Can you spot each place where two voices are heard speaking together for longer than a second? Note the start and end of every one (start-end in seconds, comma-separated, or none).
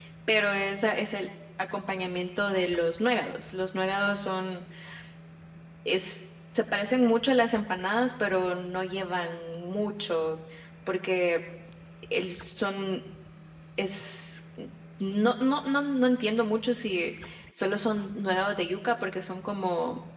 none